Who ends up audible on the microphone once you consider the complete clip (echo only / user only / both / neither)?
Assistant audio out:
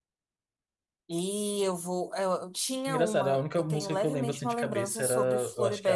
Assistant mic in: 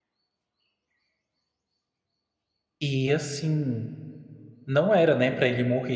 user only